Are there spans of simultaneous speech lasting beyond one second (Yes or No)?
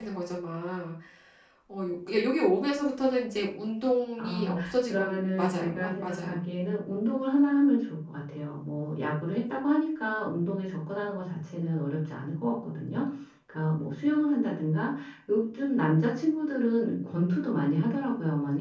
Yes